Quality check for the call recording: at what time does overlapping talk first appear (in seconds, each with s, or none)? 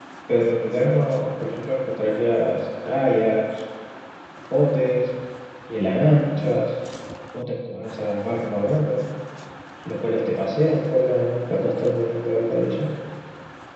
none